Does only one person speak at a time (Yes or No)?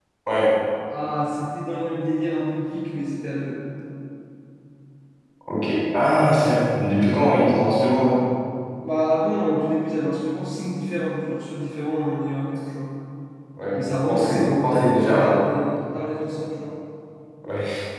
No